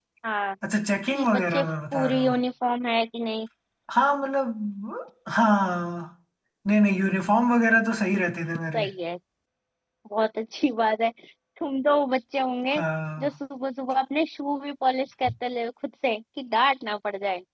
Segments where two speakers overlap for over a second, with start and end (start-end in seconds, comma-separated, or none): 1.1-2.4